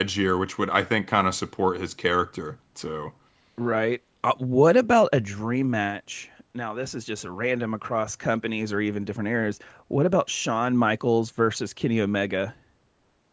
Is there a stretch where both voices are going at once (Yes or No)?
No